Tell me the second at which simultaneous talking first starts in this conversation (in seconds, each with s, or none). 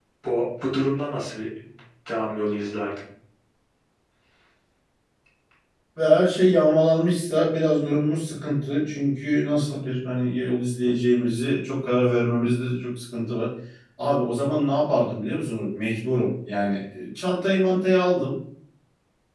none